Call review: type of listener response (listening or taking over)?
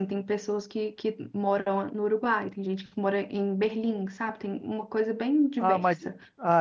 taking over